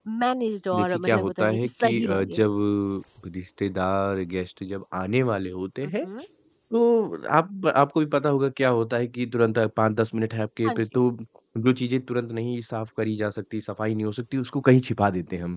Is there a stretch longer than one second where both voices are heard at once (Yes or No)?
Yes